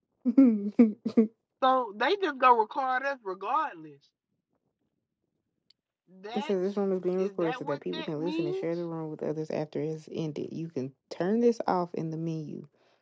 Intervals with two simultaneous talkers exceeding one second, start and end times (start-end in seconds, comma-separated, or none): 7.2-8.7